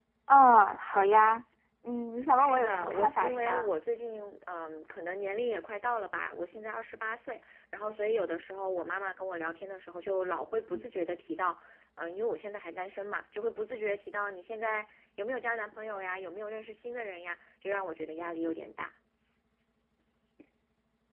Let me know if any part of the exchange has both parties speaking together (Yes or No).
Yes